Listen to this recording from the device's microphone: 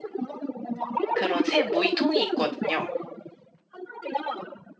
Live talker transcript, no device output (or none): 그런 새 모이통이 있거든요.